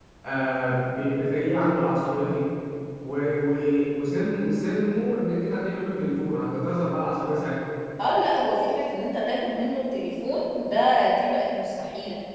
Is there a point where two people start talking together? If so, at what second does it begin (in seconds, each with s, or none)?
none